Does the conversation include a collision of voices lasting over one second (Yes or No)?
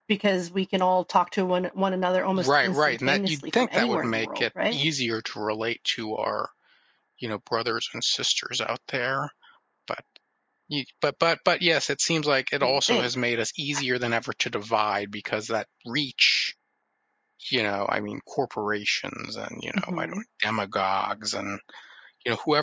Yes